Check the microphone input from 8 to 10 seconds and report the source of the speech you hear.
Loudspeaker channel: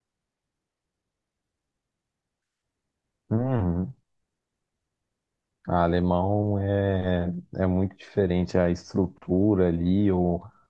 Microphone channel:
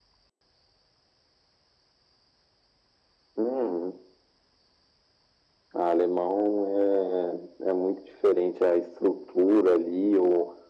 echo only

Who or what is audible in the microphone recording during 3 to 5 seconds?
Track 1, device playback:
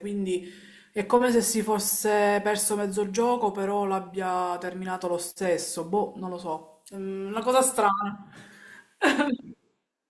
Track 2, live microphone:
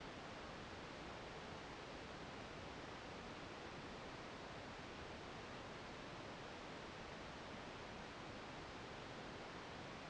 neither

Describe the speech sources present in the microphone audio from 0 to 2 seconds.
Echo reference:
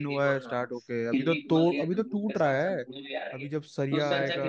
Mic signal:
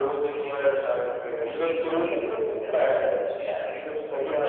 echo only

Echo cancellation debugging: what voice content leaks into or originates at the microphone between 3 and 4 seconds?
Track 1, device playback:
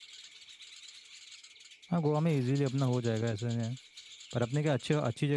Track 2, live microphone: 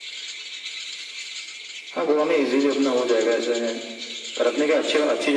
echo only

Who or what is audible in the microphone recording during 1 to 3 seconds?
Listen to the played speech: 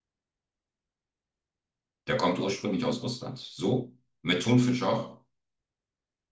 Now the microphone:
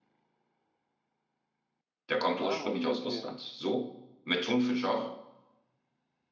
both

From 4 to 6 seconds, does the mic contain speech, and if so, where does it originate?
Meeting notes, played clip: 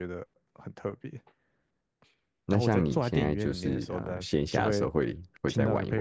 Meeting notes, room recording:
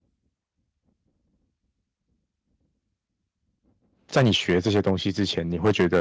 user only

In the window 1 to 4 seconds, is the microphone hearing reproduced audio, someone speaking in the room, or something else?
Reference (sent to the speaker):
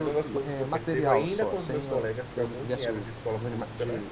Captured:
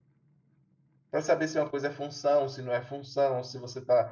user only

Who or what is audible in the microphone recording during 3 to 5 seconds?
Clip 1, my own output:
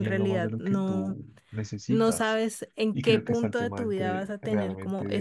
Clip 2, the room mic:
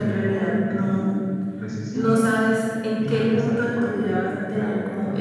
echo only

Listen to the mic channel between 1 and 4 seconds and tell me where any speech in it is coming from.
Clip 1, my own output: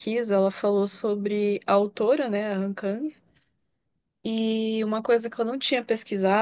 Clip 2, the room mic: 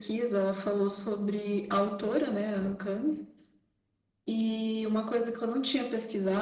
echo only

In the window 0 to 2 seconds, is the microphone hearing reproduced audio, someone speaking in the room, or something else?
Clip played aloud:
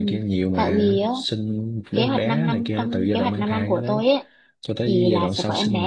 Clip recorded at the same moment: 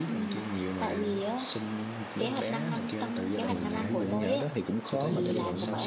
echo only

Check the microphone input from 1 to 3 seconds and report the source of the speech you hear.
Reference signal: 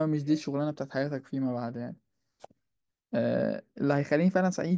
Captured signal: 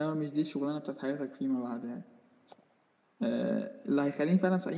echo only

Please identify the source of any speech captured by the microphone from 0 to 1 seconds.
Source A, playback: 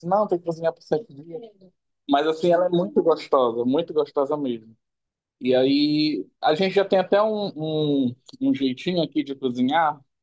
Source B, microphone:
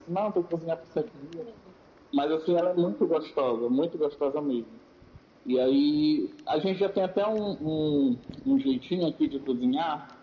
echo only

